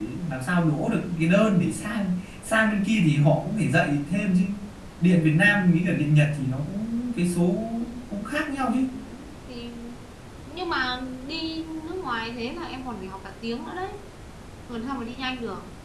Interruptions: none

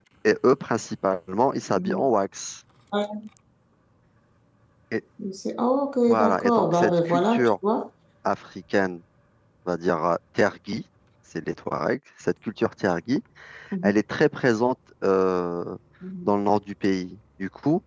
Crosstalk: present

